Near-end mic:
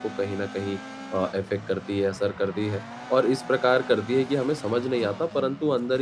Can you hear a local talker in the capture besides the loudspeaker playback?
Yes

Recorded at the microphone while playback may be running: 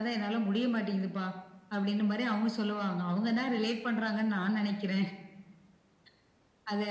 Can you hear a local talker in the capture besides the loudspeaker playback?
No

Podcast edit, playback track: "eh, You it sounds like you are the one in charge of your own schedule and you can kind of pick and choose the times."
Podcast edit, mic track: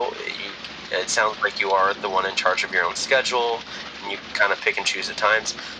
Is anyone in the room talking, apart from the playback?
No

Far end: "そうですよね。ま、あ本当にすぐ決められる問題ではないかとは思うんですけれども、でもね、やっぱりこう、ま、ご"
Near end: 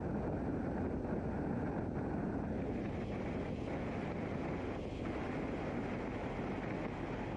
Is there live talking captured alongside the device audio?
No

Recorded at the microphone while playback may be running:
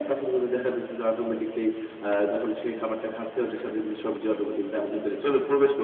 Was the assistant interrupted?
No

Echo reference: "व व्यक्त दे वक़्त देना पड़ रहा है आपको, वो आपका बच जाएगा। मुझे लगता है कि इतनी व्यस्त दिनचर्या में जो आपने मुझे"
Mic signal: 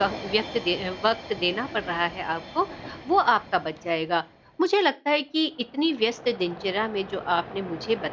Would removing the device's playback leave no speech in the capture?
Yes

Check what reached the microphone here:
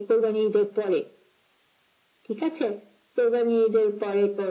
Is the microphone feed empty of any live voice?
Yes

